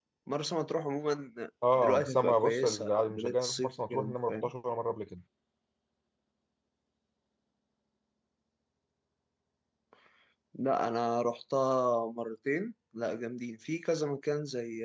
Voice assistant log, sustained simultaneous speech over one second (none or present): present